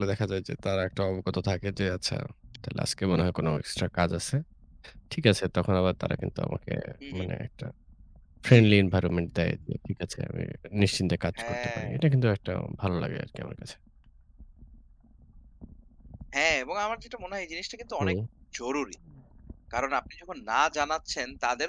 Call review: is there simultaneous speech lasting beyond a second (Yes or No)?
No